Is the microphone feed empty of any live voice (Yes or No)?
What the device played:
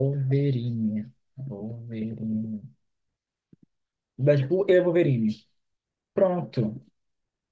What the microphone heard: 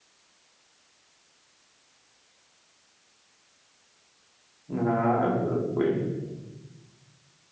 No